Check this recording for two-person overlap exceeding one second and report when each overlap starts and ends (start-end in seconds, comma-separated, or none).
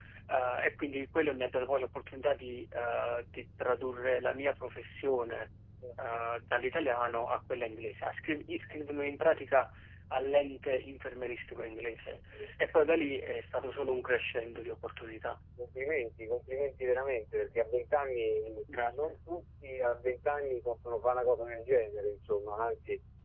none